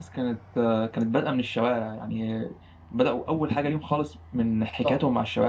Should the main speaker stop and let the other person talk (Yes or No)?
No